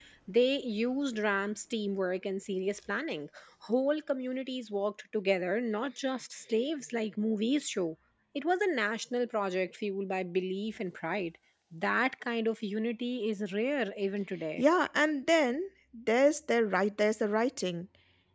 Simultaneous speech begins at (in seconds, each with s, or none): none